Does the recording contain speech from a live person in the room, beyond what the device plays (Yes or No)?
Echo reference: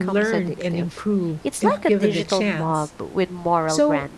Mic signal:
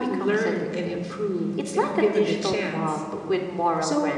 No